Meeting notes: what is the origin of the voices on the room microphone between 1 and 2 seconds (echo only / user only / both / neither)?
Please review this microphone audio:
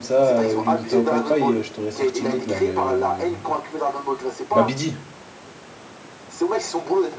both